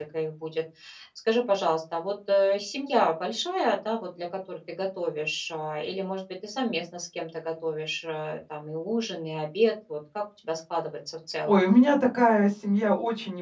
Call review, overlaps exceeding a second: none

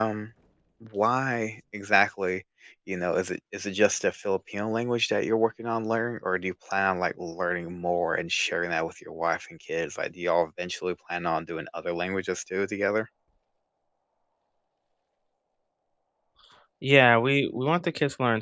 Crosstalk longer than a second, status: none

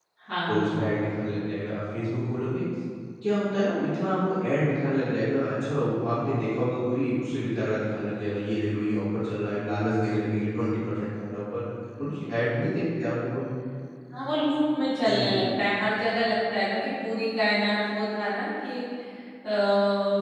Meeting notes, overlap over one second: none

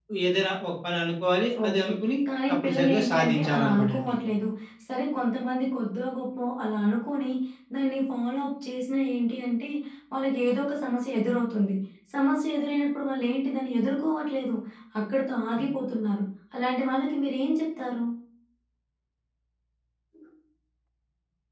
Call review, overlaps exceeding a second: present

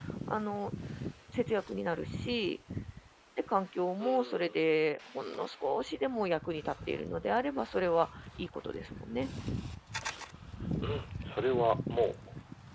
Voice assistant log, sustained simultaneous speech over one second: none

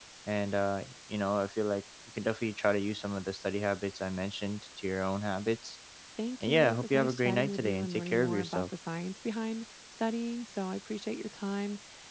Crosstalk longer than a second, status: present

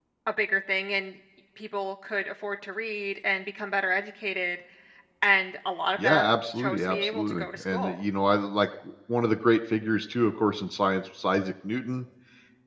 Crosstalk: present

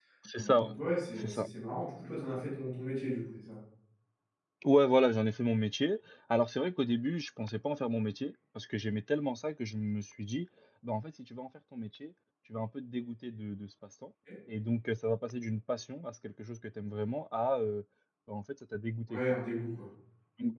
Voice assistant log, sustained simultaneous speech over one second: none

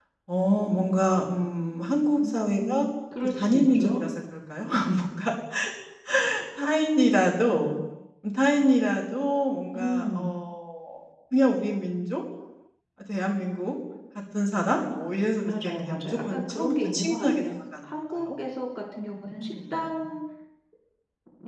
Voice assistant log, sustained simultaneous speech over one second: present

